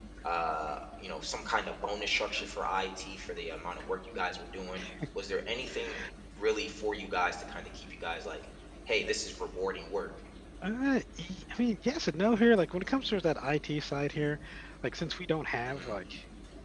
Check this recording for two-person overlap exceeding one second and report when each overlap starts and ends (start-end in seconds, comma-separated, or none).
none